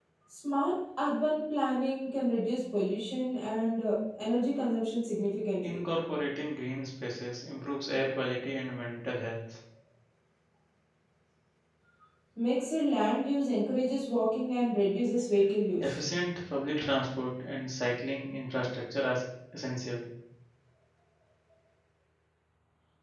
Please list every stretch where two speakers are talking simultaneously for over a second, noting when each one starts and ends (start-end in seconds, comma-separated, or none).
none